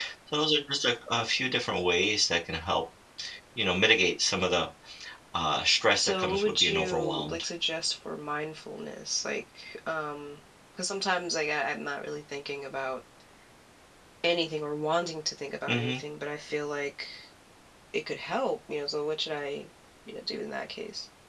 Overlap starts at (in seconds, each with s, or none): 5.9 s